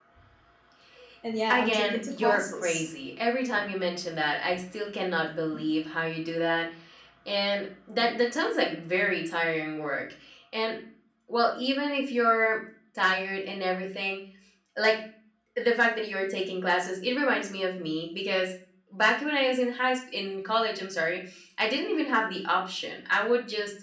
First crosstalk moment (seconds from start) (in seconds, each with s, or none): 1.5 s